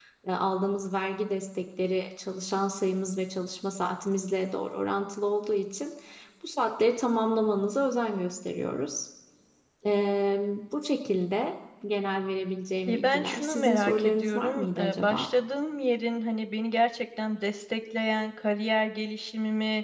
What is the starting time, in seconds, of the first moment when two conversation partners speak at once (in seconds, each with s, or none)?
12.9 s